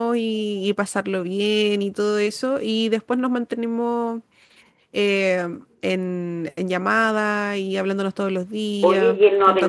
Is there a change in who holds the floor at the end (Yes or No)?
Yes